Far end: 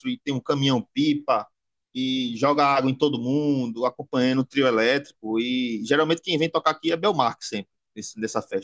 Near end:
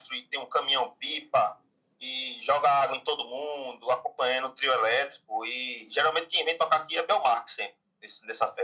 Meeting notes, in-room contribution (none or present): none